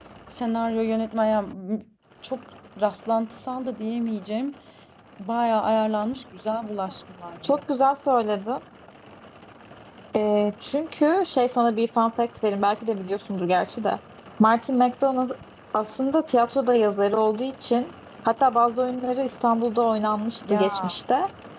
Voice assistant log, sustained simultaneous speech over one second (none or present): none